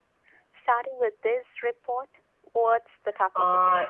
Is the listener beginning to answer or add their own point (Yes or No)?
Yes